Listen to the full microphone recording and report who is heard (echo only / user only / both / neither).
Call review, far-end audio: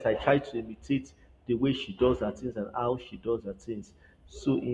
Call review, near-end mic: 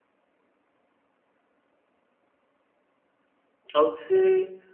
user only